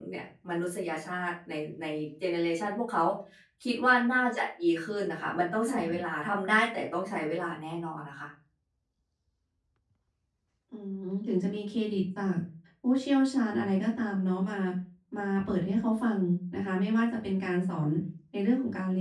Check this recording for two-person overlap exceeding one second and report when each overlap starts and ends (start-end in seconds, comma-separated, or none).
none